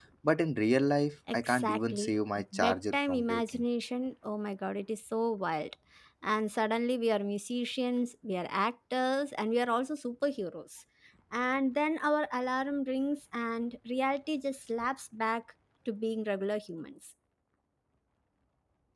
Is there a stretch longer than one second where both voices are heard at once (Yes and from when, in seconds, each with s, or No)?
Yes, from 1.3 s